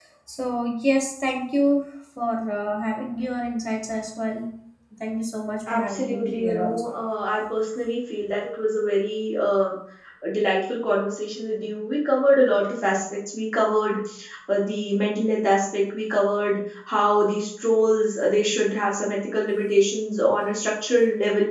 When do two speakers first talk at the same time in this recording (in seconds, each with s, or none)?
5.7 s